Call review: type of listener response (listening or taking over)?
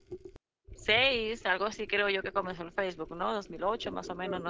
taking over